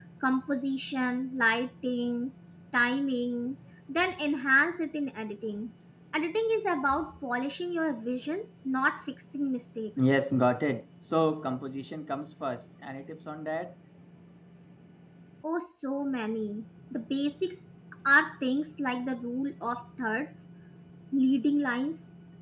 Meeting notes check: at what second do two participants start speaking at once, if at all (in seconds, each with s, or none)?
none